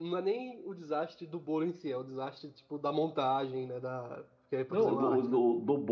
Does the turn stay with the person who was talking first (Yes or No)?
No